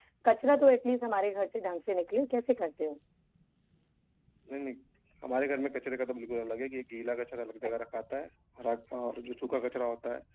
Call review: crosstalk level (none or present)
none